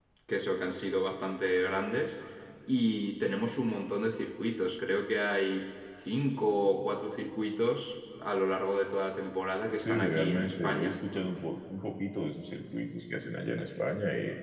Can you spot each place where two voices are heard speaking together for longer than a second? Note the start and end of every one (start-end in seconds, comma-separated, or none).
9.8-11.0